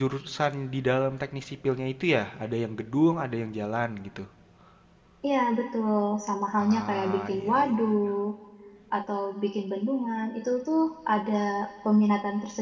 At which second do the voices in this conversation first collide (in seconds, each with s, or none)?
6.6 s